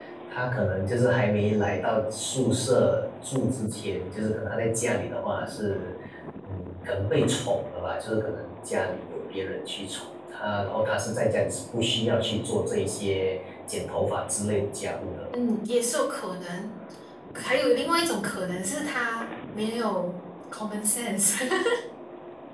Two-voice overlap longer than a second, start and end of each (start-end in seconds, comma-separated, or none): none